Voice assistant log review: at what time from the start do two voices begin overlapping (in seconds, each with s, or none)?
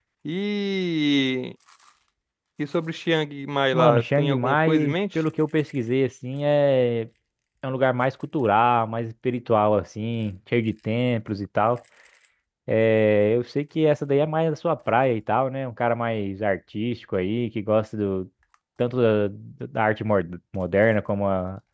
3.7 s